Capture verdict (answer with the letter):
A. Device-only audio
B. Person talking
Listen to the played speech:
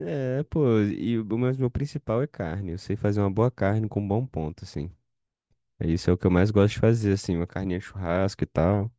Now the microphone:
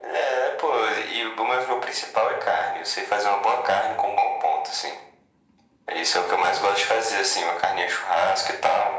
A